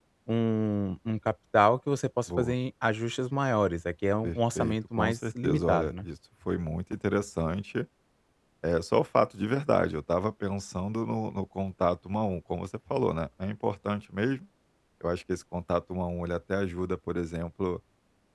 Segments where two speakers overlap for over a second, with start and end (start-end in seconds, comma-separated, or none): 4.2-6.0